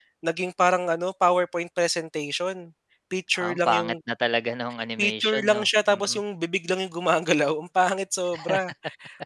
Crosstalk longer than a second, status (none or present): present